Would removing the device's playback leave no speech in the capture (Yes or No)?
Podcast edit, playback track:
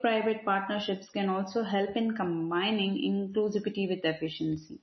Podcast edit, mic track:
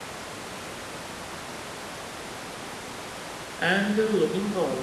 No